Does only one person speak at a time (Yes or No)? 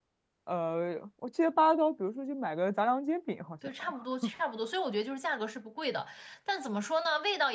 Yes